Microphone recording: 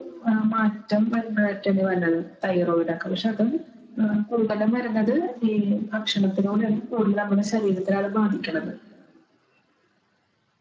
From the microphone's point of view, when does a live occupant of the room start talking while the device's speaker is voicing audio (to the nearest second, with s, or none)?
none